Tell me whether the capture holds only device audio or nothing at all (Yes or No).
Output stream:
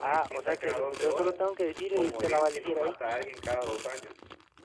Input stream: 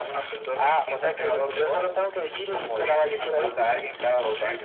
No